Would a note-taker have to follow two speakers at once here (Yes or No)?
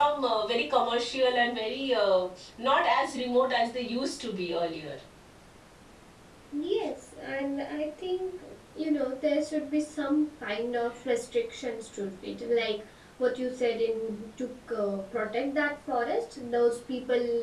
No